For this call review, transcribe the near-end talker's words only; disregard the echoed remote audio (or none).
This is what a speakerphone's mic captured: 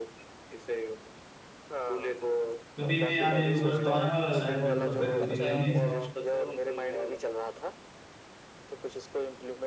कभी मैं अभी उधर तो आने वाला शायद मेरे को लगता है दो तीन दिन में